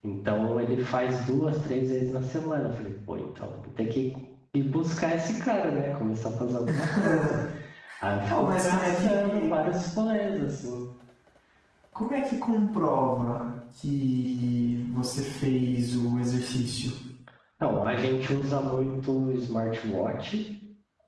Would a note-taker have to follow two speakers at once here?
Yes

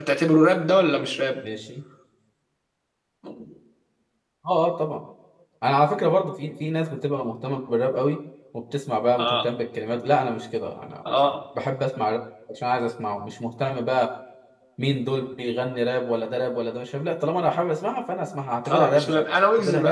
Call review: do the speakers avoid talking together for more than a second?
Yes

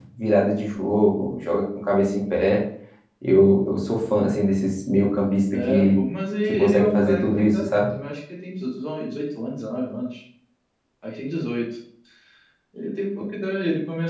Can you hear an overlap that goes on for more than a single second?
Yes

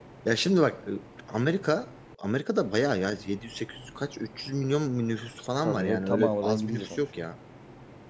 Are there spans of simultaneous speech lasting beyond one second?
Yes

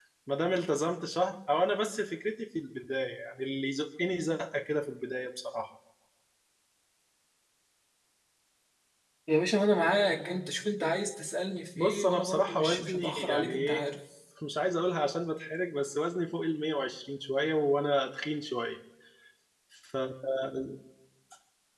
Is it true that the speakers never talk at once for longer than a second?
No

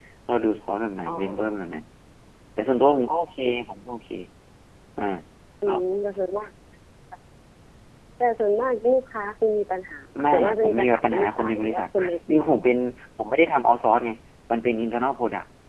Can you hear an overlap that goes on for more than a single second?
Yes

